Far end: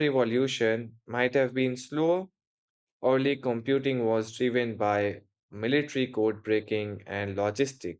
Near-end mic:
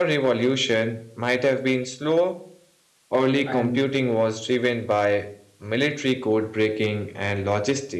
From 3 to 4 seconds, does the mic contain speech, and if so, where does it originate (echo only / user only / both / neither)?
both